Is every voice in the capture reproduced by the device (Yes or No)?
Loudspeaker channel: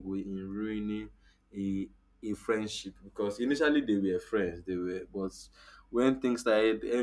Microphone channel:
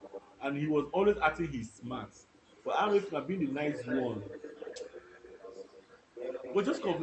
No